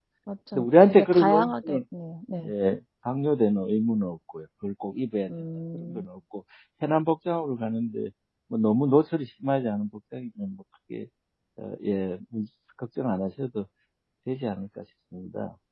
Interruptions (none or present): present